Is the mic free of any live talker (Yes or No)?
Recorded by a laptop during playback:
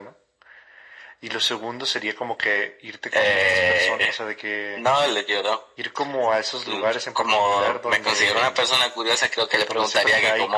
Yes